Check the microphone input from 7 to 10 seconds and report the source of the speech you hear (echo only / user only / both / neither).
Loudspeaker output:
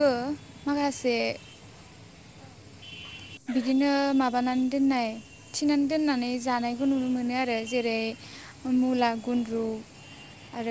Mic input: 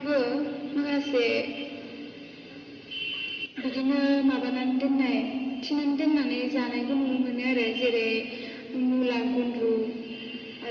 echo only